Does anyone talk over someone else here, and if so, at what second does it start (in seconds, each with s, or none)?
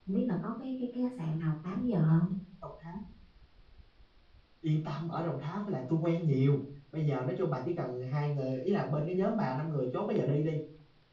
none